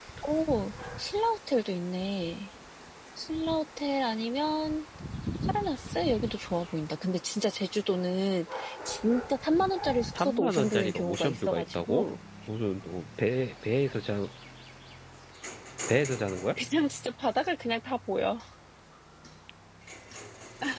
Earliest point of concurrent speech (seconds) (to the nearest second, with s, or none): 10 s